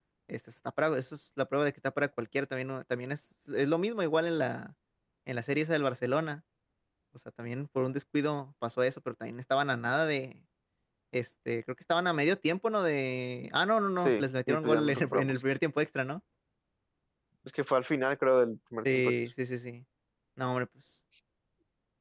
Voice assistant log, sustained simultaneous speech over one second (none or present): present